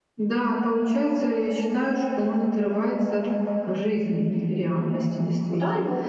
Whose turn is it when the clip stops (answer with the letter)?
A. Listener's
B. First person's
A